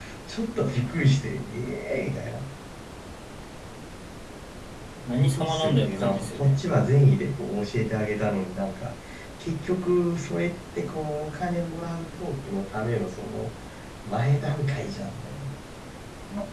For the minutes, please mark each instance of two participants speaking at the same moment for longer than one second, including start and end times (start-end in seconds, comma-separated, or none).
5.2-6.6